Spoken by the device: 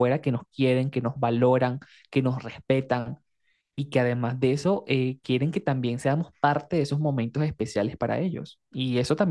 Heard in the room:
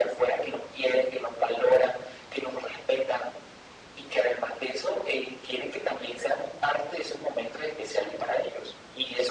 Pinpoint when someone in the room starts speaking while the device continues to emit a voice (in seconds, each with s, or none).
none